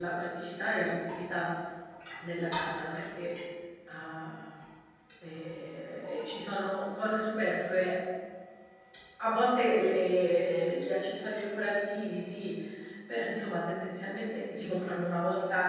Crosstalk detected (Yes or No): No